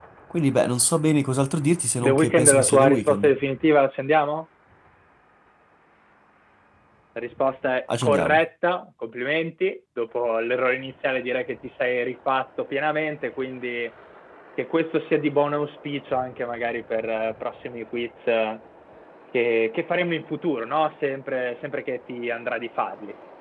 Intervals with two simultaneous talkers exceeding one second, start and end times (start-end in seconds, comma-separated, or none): 2.0-3.3